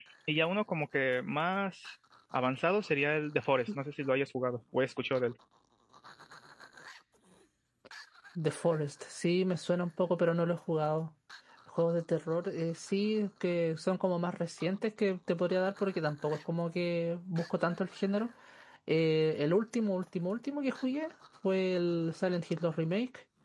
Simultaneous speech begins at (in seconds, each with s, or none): none